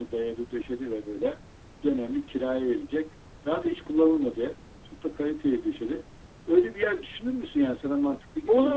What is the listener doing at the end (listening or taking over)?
taking over